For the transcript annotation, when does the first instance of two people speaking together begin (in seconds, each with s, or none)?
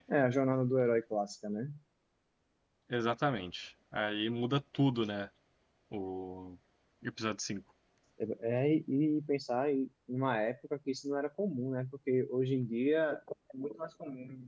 none